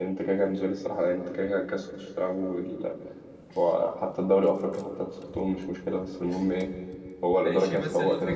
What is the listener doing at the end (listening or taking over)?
taking over